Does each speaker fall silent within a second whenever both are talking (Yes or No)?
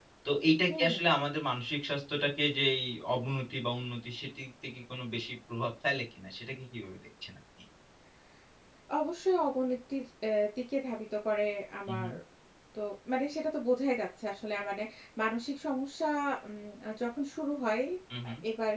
Yes